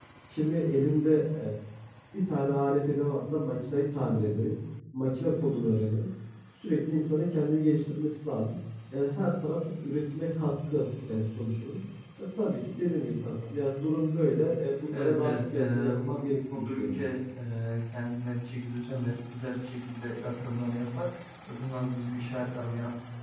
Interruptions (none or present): present